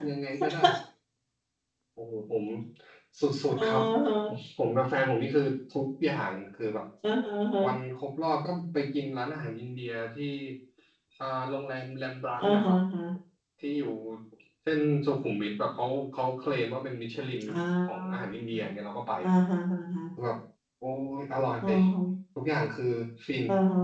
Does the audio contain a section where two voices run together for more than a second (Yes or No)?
No